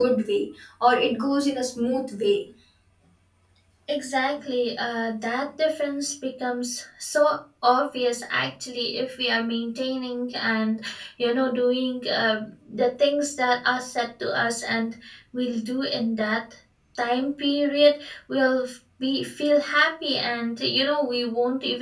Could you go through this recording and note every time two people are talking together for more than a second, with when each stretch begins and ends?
none

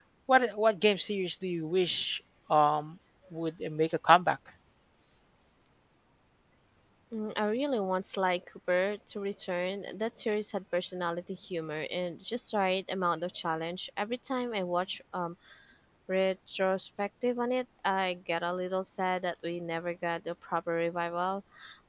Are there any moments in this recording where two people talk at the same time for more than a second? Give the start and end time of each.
none

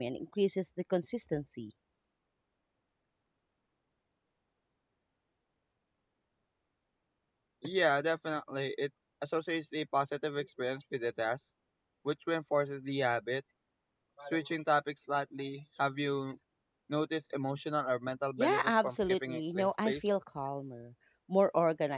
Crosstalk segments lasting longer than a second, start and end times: 18.4-20.1

